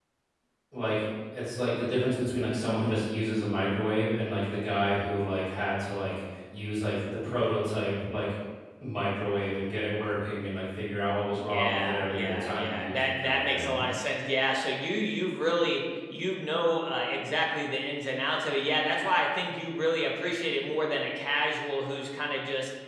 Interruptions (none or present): present